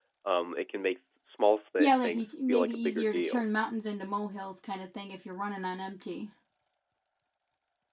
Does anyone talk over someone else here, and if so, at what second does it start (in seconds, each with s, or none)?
1.8 s